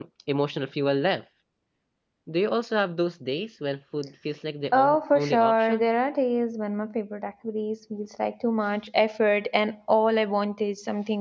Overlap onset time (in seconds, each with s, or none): 4.7 s